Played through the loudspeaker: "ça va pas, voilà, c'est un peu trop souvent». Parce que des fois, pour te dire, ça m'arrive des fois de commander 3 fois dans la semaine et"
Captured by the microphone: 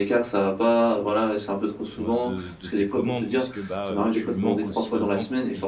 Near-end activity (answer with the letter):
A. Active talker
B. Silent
A